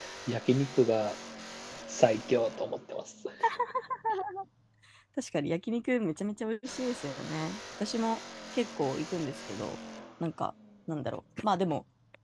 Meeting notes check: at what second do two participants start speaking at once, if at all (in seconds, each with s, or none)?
none